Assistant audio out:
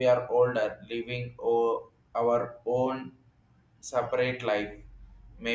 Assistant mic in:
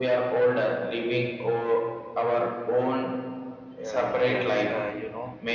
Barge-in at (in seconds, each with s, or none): 3.8 s